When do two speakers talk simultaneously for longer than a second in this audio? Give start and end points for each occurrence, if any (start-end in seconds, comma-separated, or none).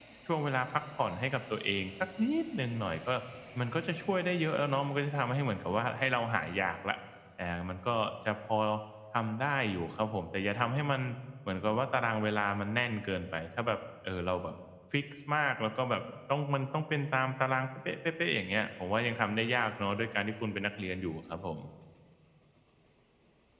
none